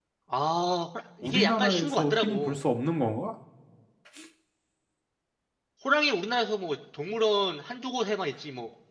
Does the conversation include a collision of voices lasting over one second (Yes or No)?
Yes